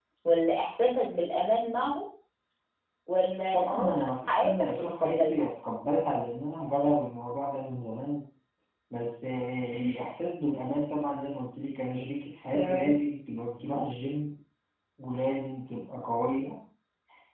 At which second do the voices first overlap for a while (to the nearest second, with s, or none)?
4 s